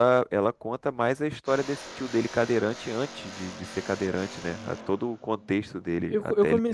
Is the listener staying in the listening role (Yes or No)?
No